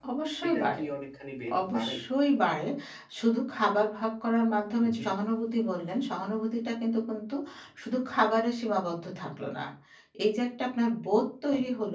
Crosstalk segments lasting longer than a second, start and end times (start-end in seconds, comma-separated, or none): none